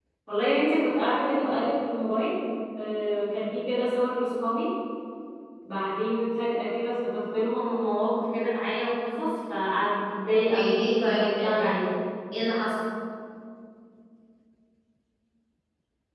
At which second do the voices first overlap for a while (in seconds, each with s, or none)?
10.5 s